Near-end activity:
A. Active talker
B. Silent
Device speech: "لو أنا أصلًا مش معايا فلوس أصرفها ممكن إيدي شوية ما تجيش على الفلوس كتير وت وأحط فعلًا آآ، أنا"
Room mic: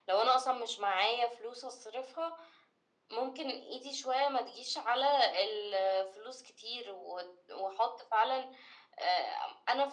B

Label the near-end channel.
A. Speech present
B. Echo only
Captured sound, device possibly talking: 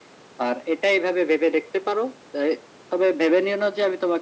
B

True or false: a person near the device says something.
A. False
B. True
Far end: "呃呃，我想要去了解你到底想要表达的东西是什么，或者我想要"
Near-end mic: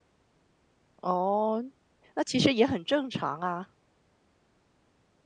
B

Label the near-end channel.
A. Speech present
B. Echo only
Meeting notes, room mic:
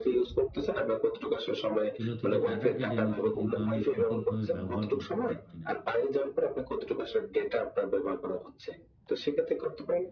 A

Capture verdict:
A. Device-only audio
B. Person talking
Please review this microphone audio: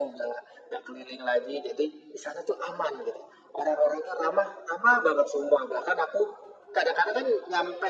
A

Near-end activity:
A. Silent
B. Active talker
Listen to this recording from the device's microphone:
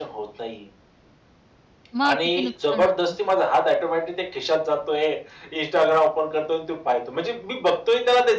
B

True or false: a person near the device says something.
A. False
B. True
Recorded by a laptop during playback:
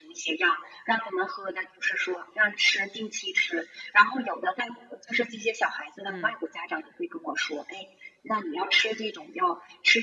B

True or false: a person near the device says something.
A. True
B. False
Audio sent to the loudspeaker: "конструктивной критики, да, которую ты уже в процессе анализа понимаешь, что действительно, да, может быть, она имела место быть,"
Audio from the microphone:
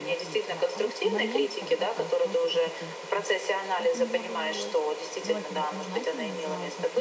A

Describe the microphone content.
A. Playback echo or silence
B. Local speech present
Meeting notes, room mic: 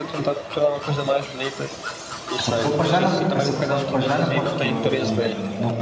B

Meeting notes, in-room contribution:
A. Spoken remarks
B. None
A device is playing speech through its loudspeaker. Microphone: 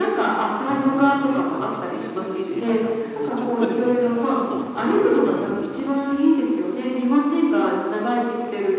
A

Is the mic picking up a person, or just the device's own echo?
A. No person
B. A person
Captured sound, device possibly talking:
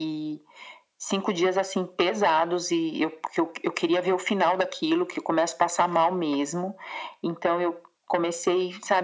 A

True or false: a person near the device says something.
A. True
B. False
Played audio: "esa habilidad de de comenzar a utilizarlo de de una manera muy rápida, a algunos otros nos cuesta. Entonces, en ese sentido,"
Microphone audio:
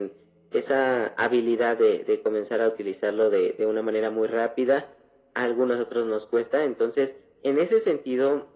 B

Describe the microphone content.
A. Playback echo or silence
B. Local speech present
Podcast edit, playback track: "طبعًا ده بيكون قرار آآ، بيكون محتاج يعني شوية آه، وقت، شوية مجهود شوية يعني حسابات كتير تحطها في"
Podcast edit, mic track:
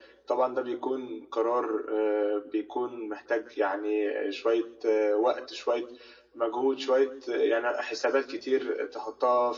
A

